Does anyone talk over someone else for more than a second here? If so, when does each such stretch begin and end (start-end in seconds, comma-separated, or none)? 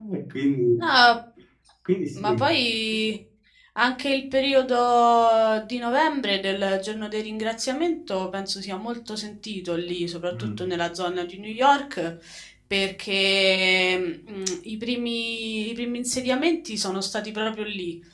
none